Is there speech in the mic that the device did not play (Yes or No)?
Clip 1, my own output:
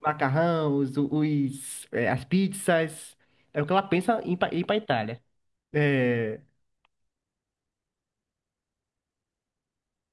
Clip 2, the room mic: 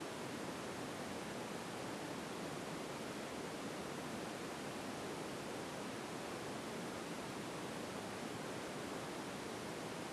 No